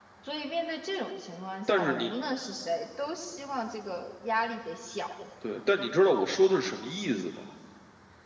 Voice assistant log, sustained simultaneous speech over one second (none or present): none